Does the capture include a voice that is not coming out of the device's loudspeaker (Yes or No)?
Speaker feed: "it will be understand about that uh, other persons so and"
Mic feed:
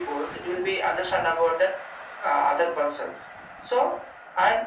No